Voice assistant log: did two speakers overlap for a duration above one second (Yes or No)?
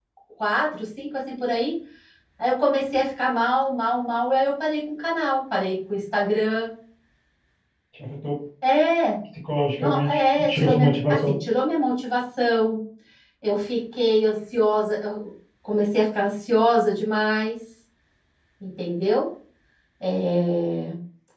Yes